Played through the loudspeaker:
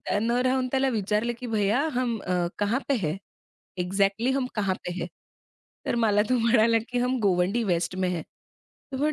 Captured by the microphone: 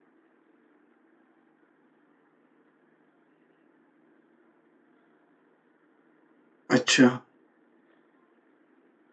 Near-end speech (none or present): present